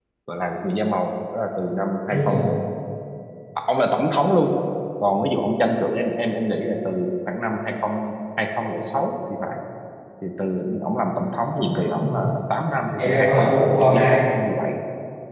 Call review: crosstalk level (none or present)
present